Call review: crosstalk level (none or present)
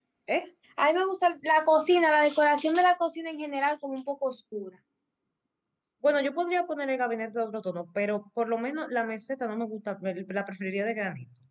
none